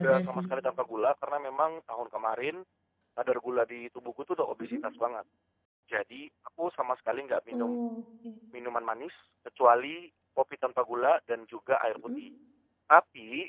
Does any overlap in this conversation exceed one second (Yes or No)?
No